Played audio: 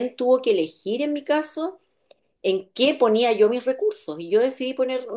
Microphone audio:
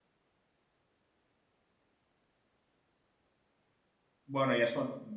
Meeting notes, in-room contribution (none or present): present